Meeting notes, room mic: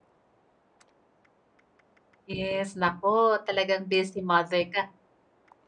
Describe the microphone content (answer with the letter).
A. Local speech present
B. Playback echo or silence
A